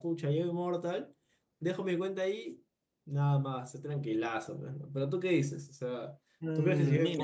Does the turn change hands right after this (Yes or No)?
Yes